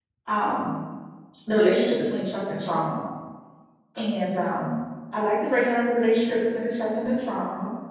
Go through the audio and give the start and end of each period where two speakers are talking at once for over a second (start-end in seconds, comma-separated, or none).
none